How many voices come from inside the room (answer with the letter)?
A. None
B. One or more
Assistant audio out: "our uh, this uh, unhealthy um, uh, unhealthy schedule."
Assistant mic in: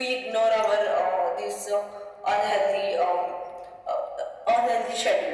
A